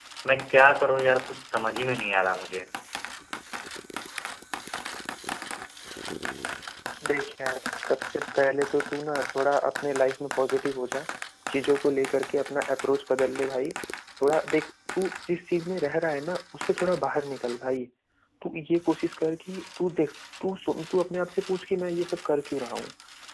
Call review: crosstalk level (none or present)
none